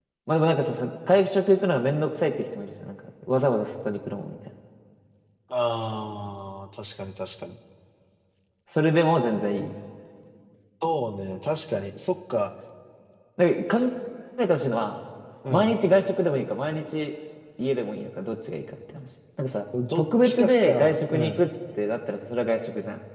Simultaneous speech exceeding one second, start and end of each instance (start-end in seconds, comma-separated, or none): 20.0-21.4